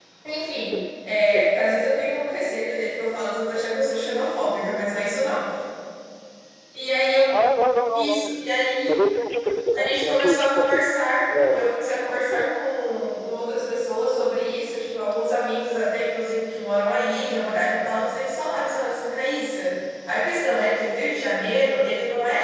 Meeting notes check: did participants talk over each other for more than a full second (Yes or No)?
Yes